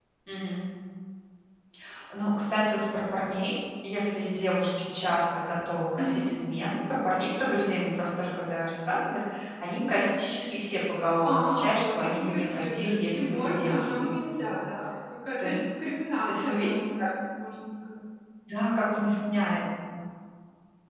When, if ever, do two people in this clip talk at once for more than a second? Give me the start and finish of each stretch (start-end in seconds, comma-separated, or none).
11.2-14.5